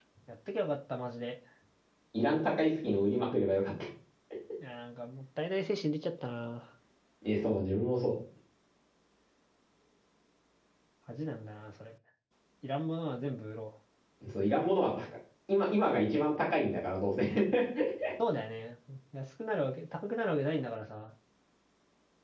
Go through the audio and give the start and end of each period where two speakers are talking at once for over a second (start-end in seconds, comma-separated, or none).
none